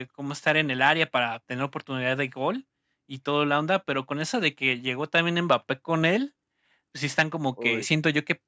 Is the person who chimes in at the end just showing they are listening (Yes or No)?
Yes